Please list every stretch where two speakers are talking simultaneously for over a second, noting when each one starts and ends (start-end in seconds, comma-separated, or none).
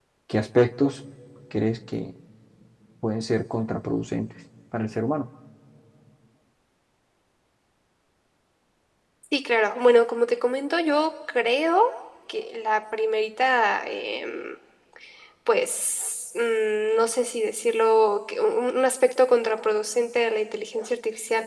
none